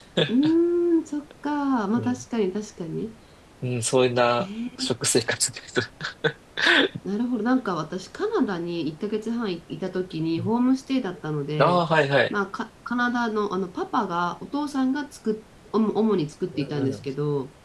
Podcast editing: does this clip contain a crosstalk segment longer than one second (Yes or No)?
No